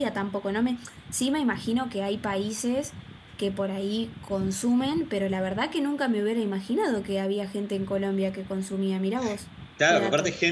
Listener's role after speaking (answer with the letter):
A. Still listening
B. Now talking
B